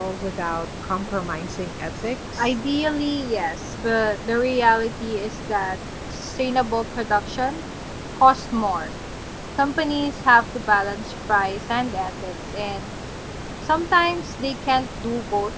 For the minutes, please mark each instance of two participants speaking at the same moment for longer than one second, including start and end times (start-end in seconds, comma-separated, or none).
none